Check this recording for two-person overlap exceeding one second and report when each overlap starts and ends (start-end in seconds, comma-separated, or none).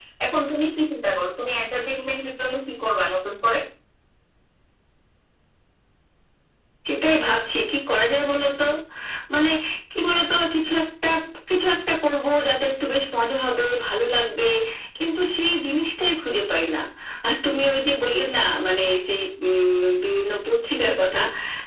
none